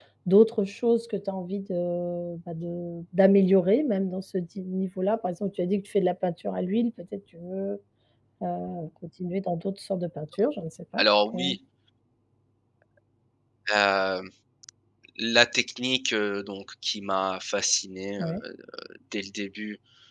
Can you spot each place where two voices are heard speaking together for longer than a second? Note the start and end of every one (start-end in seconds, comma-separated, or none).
none